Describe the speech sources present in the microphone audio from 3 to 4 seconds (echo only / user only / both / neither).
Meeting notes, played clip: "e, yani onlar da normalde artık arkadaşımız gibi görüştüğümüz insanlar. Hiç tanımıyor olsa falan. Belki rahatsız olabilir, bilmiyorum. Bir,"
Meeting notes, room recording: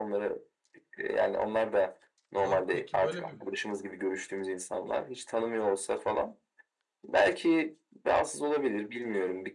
both